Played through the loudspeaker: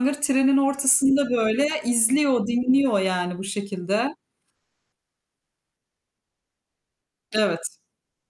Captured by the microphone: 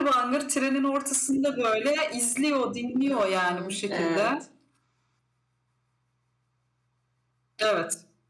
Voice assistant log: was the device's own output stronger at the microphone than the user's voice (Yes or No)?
Yes